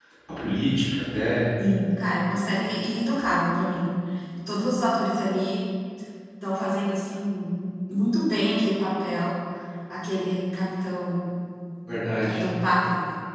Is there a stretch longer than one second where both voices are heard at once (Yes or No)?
No